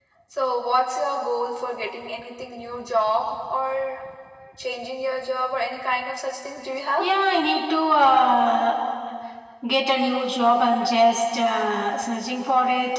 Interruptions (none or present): none